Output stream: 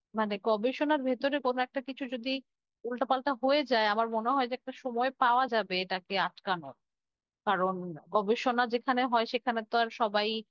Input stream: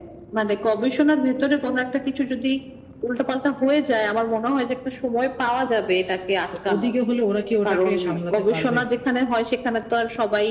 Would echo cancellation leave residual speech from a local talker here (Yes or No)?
Yes